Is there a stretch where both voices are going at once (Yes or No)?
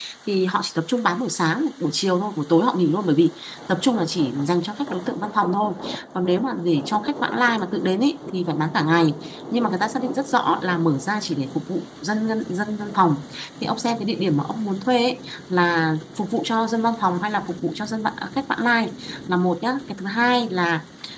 No